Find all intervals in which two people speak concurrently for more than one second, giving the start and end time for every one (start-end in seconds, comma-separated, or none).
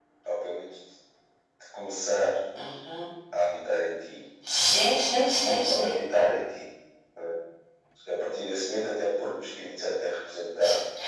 none